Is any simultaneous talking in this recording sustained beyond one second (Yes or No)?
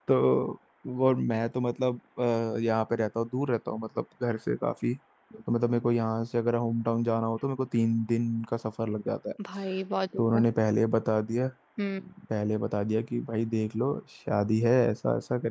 No